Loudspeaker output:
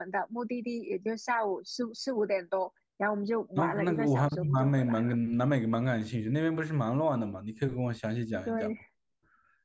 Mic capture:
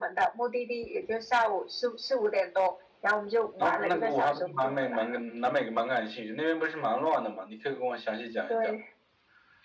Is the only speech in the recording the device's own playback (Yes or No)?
Yes